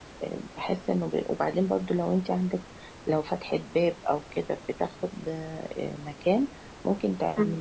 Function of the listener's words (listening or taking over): listening